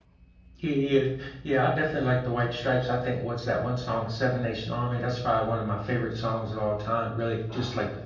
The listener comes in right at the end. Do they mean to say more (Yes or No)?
No